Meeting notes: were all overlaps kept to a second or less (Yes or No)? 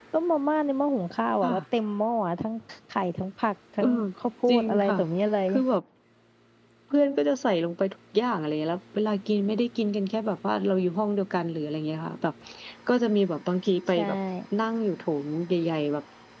Yes